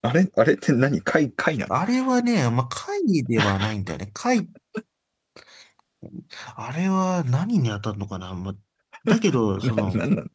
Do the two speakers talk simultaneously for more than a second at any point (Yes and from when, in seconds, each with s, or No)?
No